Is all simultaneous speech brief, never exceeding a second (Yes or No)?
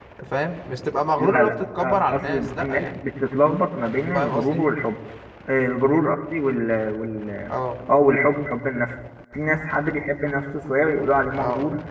No